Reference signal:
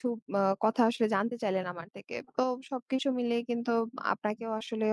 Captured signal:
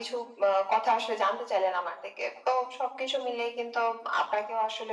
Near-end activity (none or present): none